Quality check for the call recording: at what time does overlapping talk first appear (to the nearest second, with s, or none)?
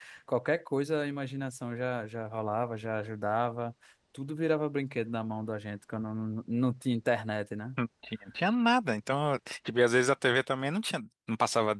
none